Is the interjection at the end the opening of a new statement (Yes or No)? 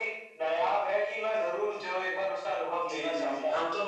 Yes